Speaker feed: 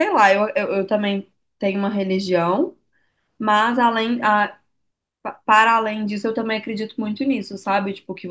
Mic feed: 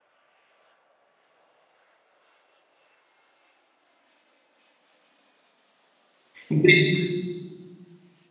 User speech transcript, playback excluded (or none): Entendi.